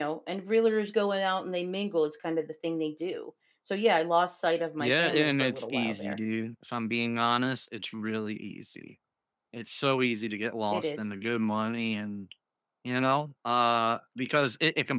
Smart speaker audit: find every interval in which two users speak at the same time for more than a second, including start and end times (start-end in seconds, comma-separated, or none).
4.8-6.2